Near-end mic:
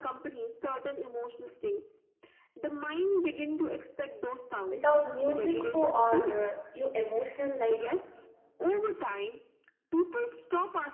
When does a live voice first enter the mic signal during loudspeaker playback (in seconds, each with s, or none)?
4.7 s